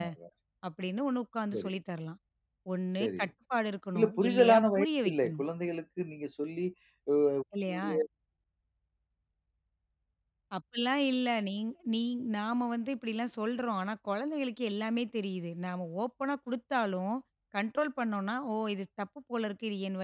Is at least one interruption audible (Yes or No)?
Yes